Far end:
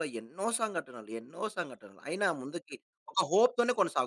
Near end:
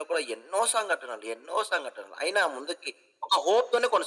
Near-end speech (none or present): none